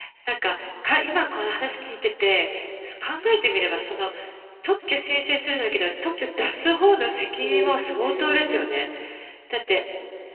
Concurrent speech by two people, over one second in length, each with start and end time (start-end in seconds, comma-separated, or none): 7.2-8.7